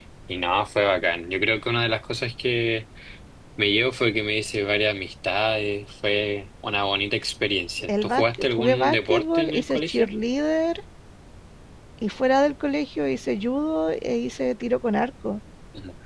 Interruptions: present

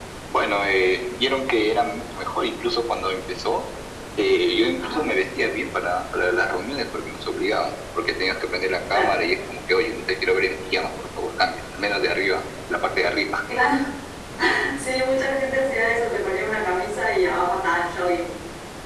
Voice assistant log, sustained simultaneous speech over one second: none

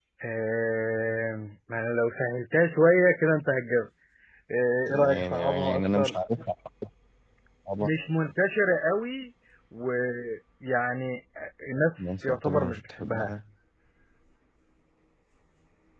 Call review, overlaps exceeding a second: present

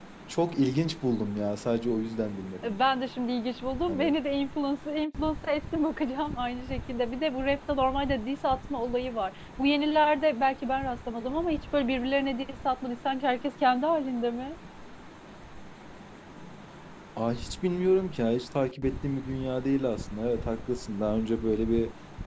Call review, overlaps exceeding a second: none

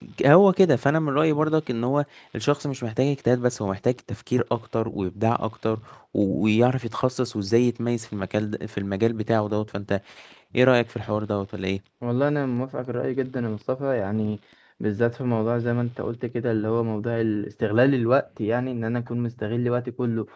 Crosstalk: none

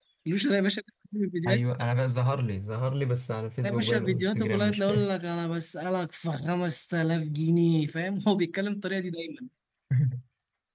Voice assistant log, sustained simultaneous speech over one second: present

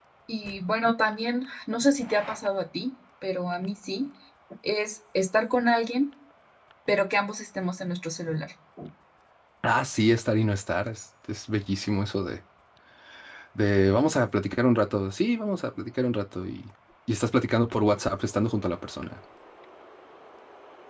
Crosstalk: none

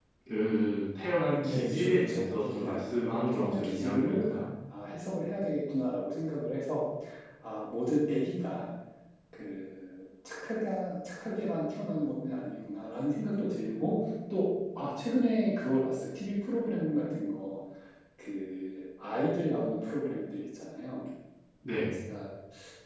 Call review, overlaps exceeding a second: present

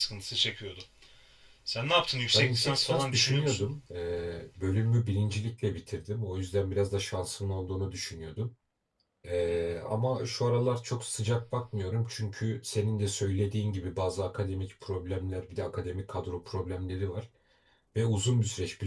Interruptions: present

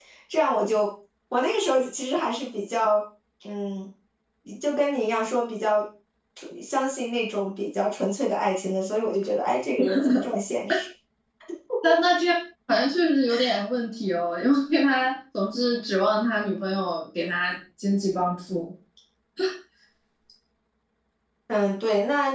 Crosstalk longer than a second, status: none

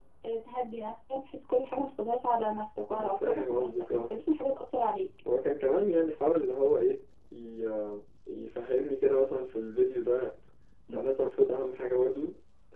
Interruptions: present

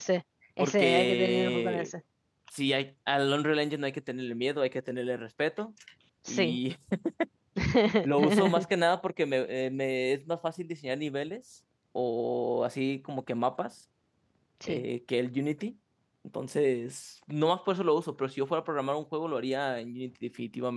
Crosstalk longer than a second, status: present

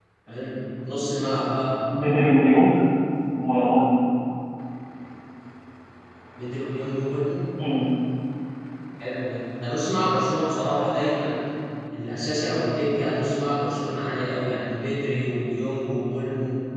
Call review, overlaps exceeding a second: none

